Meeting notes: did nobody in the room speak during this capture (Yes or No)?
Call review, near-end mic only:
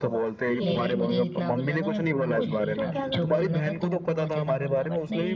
No